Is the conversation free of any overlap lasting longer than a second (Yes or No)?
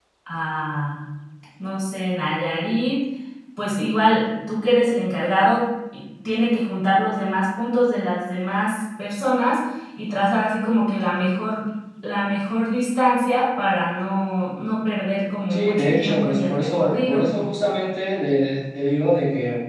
No